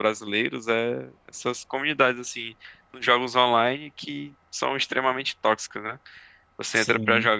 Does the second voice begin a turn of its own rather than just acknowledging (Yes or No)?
No